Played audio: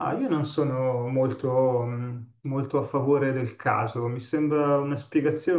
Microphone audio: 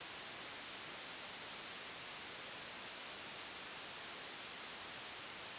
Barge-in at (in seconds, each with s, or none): none